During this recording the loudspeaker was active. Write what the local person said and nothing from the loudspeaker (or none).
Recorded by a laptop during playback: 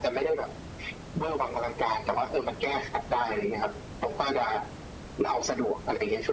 none